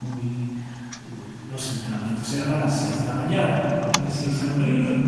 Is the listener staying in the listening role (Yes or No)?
No